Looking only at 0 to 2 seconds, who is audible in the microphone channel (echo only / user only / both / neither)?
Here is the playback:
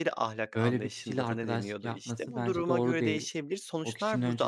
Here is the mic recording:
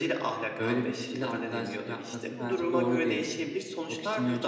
echo only